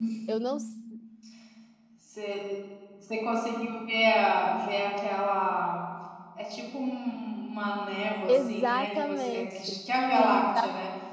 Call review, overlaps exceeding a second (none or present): present